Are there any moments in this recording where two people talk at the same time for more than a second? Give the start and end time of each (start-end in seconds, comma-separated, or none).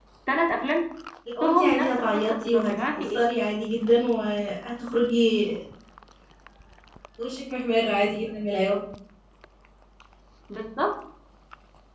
1.4-3.2